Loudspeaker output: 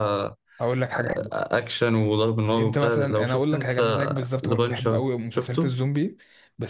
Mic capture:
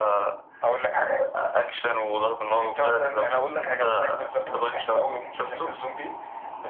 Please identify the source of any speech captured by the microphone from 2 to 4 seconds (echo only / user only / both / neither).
echo only